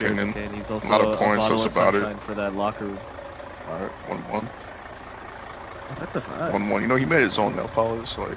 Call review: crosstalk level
present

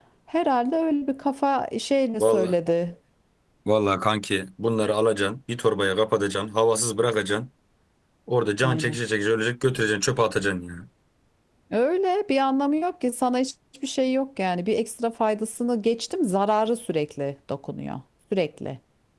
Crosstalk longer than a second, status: none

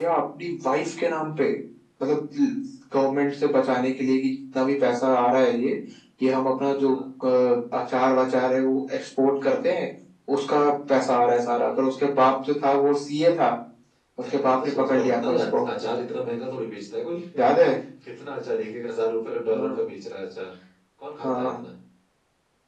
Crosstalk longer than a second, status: present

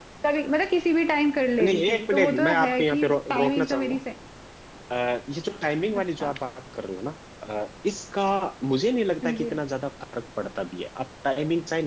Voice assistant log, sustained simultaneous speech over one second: present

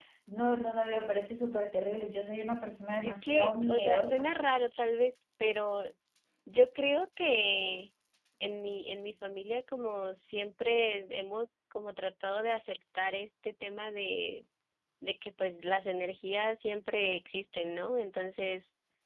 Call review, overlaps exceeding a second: present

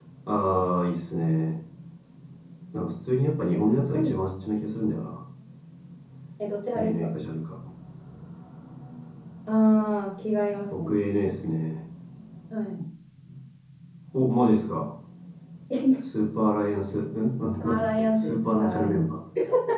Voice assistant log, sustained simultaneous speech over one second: present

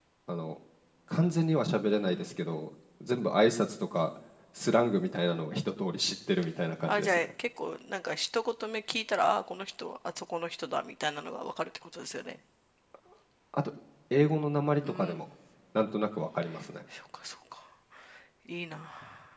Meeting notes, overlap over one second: none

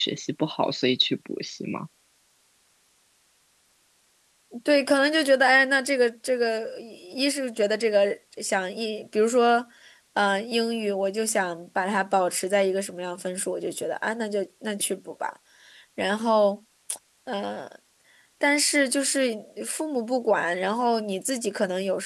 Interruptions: none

